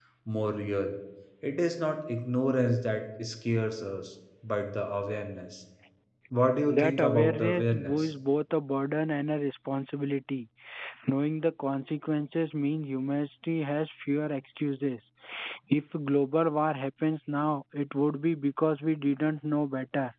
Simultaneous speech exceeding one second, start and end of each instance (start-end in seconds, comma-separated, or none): 6.7-8.1